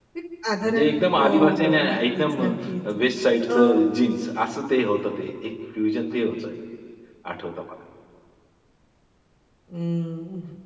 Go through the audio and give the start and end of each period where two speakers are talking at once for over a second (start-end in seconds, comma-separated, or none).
0.6-2.4